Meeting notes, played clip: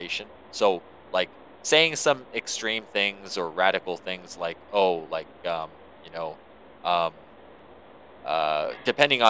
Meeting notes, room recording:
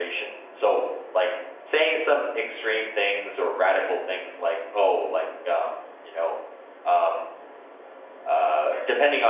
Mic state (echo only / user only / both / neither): echo only